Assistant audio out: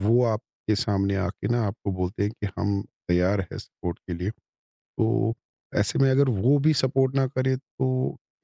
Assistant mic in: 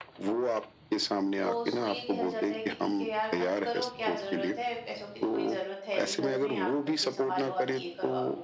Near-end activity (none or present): present